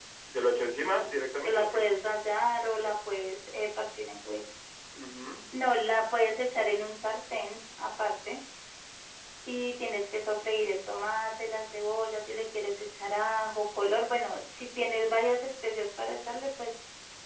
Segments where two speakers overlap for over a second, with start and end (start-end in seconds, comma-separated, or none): none